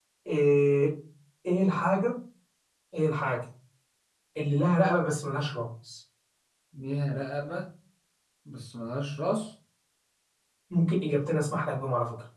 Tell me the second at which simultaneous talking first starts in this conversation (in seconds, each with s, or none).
none